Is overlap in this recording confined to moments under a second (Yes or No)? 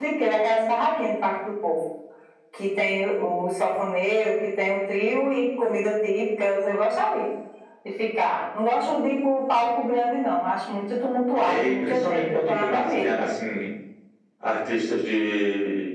No